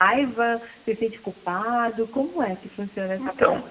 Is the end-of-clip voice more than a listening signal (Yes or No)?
Yes